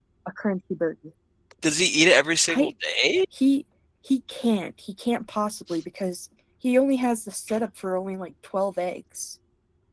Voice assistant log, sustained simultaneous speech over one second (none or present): none